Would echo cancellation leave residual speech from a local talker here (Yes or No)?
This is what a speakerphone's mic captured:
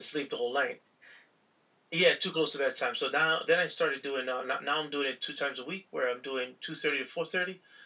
No